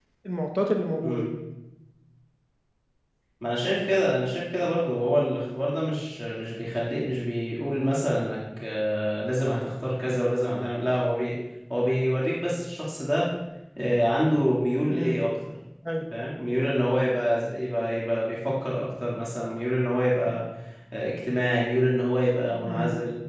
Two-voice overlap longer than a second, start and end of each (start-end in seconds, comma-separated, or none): none